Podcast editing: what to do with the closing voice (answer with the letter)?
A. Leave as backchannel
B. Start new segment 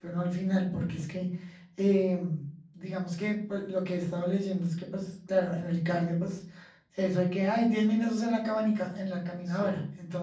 A